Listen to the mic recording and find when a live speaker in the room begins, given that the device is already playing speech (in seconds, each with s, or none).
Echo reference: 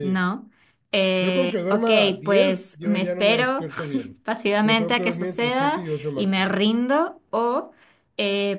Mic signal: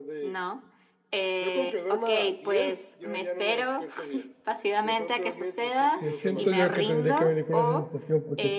6.0 s